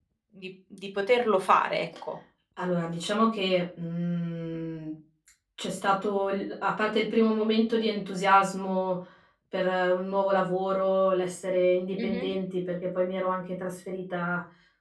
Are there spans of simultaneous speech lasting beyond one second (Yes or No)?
No